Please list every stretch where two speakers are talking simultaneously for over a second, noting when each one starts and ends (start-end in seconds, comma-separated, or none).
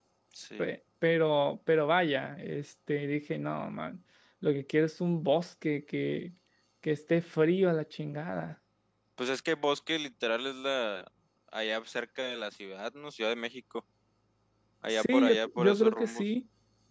14.9-16.3